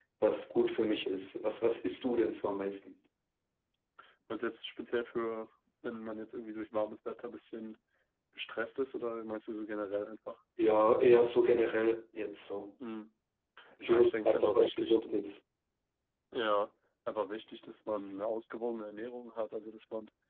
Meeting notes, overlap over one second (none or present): present